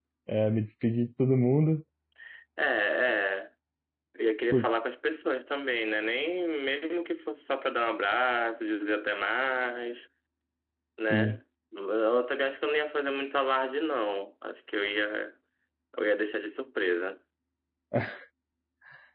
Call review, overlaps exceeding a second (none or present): none